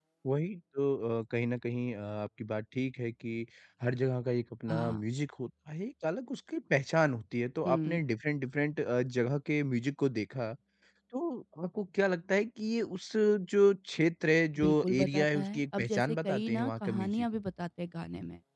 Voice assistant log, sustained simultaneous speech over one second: present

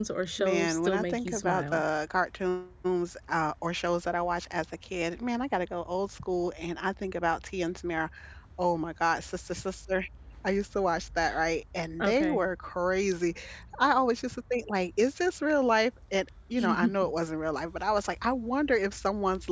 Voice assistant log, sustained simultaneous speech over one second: present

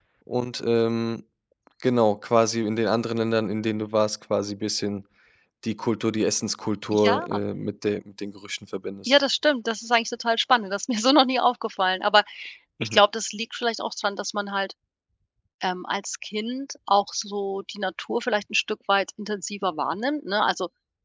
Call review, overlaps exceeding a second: none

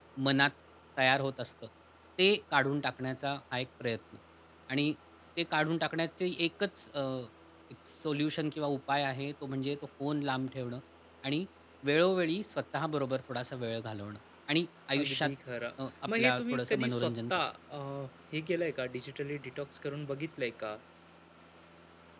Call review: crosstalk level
present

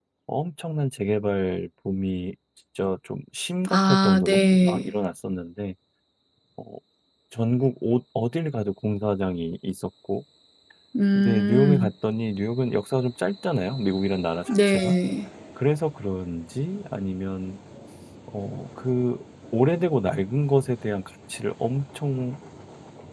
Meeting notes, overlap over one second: present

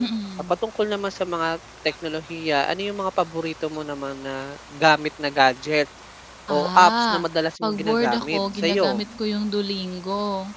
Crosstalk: present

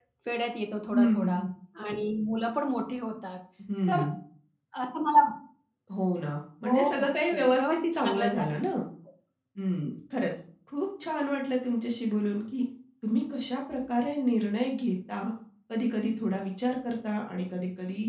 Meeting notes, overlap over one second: present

